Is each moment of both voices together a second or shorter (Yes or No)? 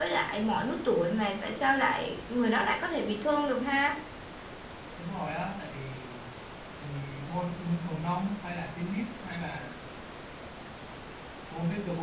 Yes